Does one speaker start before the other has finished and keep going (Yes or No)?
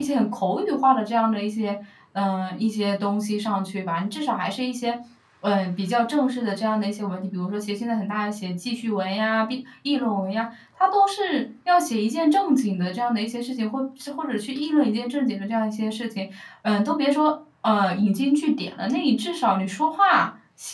No